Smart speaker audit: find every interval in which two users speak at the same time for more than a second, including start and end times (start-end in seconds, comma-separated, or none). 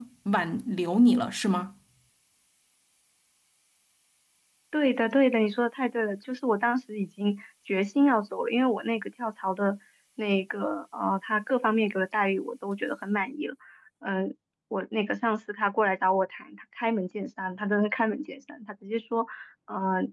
none